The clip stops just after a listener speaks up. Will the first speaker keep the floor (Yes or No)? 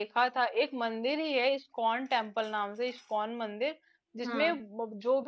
Yes